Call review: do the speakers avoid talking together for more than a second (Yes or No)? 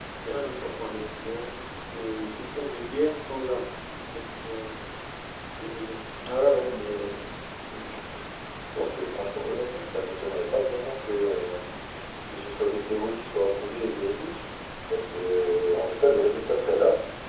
Yes